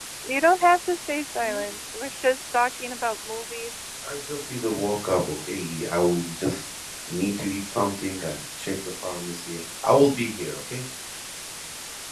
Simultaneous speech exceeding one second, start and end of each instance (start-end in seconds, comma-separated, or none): none